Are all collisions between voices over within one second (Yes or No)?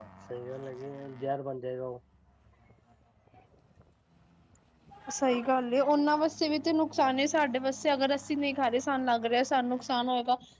Yes